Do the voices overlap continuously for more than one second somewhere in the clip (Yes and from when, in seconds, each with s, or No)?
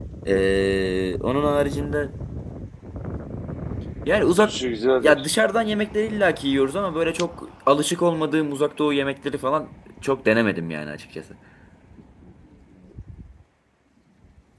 No